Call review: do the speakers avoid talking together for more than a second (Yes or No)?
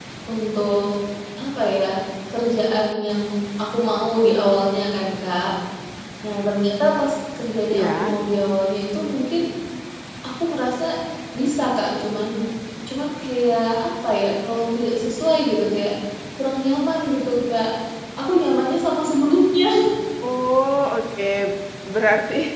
Yes